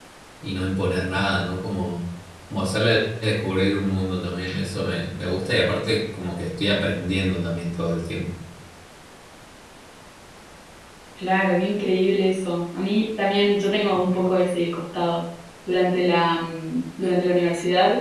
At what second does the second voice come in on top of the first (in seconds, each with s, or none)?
none